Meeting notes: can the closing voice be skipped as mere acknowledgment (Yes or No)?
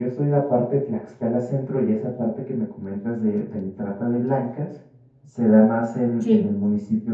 Yes